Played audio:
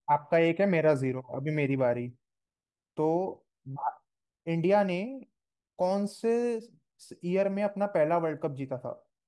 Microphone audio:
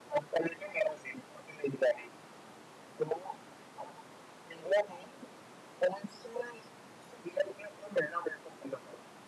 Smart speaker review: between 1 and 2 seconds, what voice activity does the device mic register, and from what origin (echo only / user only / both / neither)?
echo only